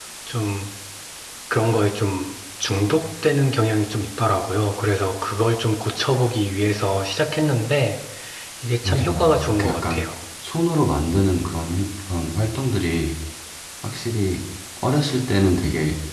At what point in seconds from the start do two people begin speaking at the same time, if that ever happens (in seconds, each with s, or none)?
8.8 s